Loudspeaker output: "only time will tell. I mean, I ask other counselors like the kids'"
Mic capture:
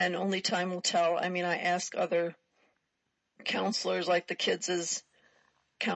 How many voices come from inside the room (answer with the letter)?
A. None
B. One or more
A